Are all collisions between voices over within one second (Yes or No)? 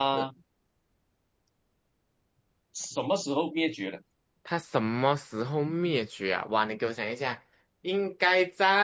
Yes